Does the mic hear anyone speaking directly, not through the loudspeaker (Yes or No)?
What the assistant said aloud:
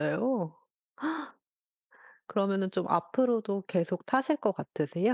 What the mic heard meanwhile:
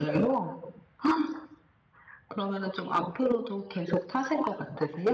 No